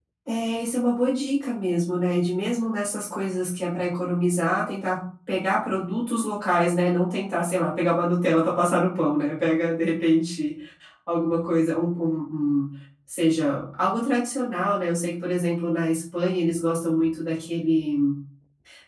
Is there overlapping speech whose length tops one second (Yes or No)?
No